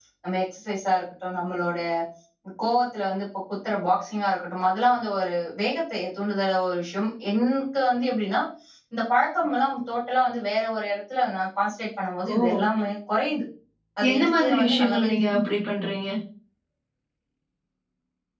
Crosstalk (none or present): present